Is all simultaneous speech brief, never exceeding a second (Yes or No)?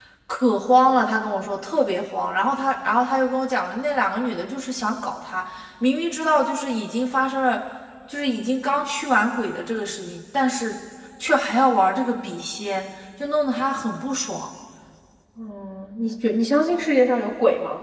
Yes